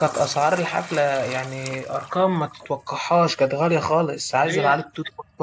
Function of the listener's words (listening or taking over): listening